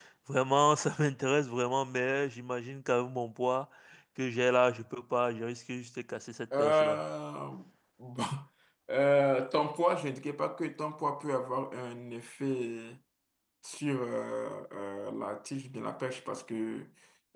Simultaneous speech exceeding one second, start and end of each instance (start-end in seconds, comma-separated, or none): none